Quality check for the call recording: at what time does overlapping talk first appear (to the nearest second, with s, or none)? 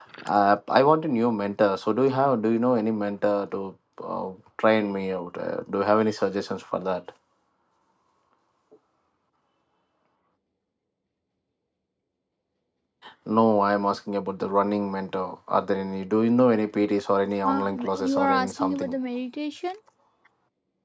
17 s